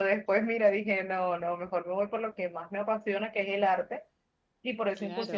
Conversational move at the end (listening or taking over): listening